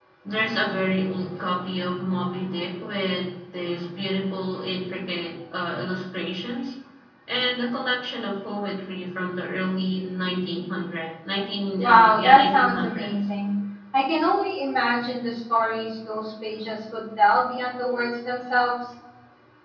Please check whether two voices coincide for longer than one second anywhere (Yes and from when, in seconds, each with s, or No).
Yes, from 11.8 s